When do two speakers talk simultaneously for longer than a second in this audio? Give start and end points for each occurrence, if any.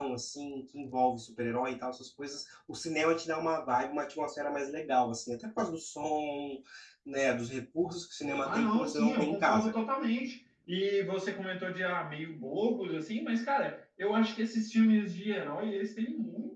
8.4-9.8

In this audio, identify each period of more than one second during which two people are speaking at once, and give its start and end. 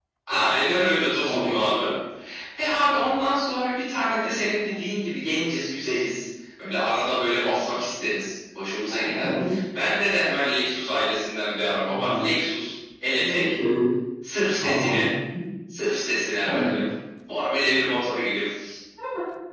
none

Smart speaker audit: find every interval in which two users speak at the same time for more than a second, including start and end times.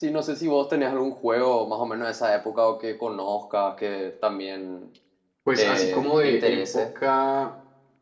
5.6-6.8

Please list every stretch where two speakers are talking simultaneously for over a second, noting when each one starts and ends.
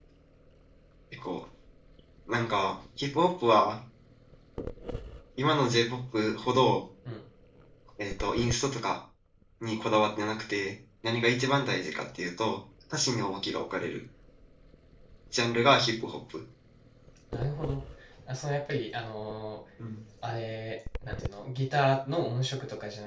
none

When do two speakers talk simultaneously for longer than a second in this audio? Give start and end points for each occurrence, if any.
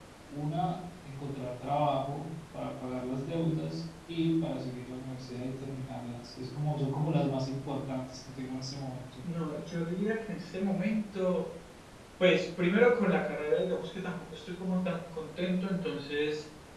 none

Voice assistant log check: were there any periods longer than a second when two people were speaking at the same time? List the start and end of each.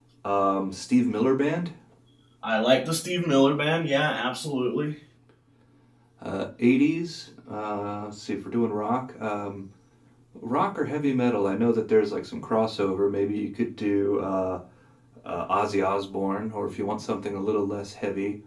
none

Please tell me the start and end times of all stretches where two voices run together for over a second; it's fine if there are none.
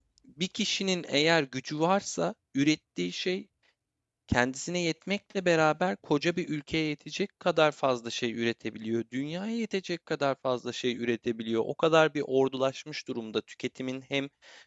none

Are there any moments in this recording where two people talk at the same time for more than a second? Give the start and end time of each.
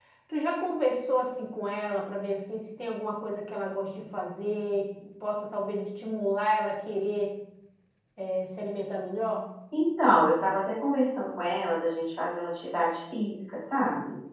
none

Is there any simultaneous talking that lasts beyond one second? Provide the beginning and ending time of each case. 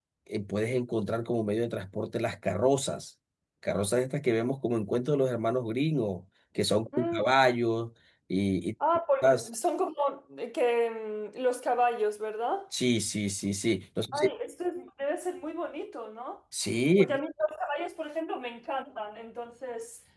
none

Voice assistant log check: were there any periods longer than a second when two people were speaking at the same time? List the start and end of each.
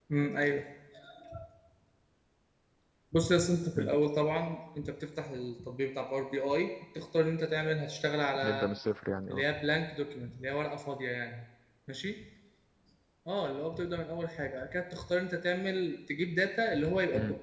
none

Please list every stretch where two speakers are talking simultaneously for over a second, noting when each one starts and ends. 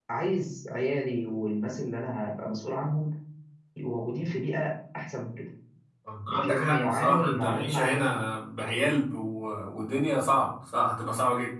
6.3-8.1

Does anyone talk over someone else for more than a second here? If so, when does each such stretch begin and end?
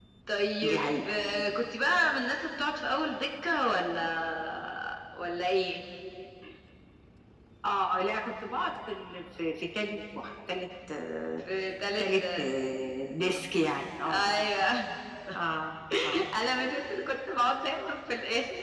none

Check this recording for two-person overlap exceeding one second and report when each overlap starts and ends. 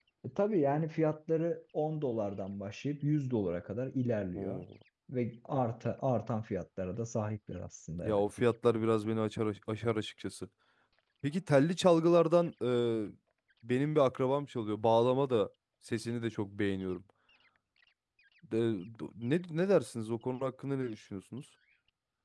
none

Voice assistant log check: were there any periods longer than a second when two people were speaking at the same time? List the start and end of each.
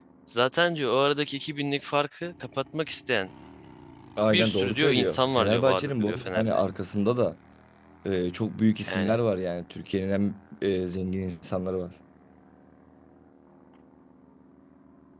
4.3-6.6

